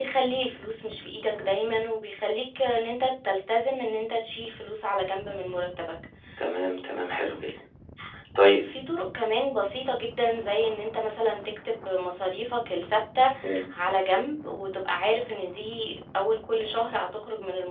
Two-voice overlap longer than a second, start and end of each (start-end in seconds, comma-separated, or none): none